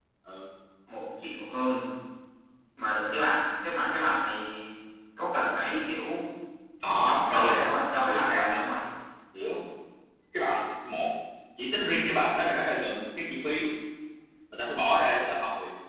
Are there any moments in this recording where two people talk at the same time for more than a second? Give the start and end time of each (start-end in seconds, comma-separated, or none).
7.0-8.6